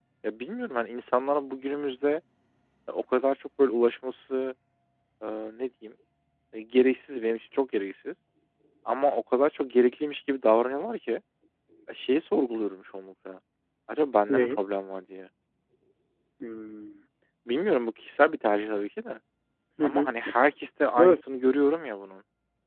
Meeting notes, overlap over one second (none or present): none